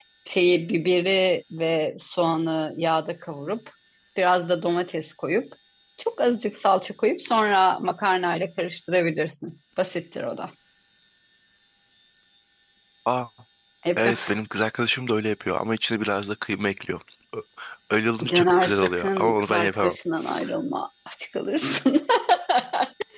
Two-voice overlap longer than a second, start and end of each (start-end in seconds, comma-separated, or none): 18.2-20.0